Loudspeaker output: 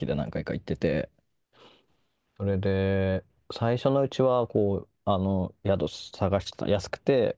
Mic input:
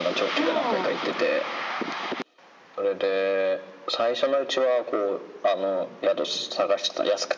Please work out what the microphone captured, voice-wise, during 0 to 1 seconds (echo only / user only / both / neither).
both